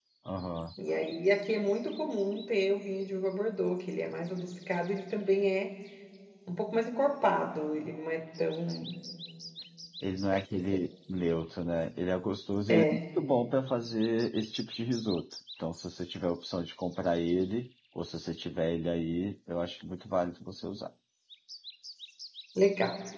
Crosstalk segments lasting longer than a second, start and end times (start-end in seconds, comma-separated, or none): none